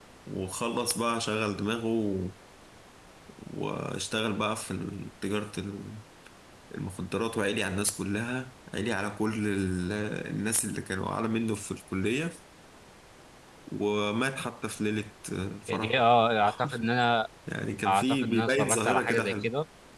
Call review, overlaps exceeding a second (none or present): present